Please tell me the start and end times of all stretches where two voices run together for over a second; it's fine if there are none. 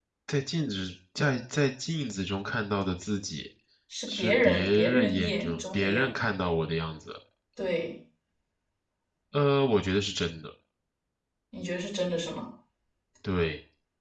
4.1-6.1

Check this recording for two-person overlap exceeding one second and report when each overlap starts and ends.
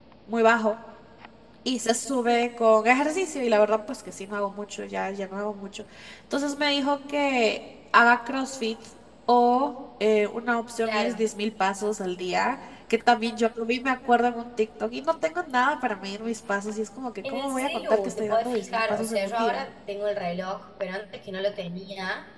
17.3-19.6

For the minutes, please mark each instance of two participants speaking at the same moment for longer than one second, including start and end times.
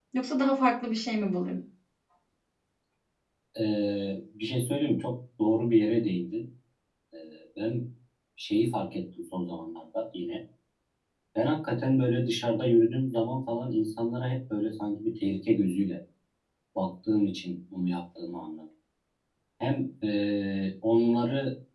none

